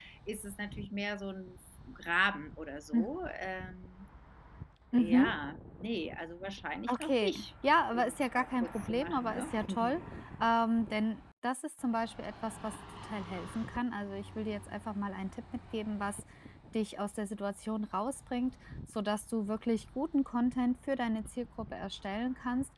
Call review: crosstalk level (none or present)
present